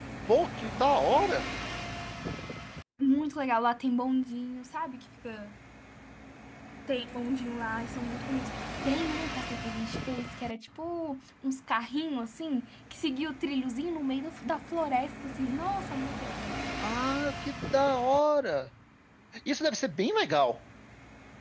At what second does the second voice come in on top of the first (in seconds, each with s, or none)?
none